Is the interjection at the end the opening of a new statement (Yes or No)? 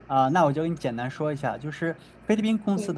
No